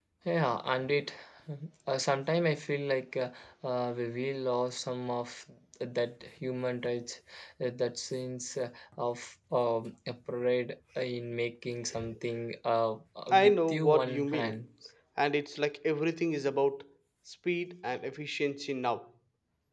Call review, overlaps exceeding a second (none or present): present